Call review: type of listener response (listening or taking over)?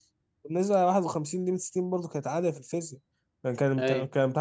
listening